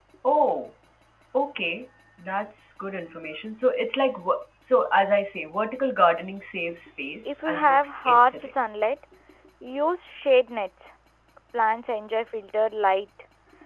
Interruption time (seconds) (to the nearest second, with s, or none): 7 s